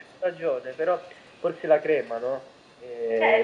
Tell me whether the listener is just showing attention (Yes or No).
No